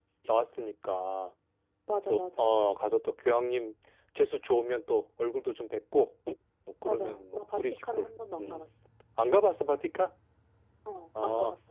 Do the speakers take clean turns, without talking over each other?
No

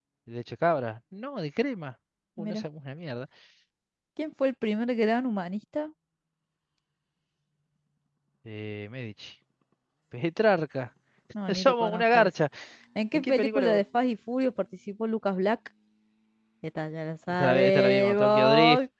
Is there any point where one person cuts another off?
Yes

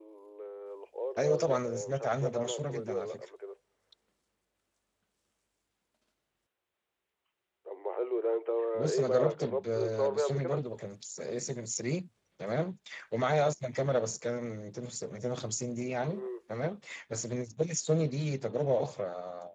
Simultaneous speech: Yes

